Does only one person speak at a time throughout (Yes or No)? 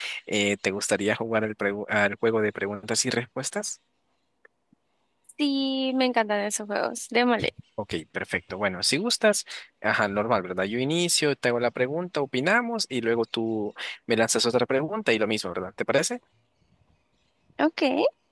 Yes